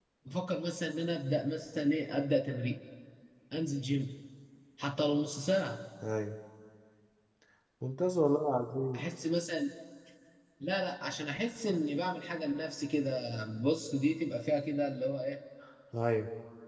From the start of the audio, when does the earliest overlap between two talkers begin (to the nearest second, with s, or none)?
none